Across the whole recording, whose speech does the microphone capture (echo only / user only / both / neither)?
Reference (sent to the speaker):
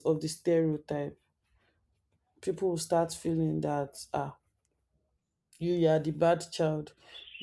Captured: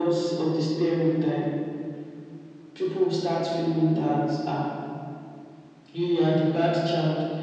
echo only